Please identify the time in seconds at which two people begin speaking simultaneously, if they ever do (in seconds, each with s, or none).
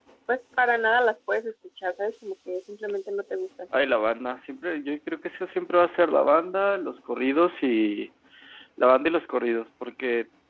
none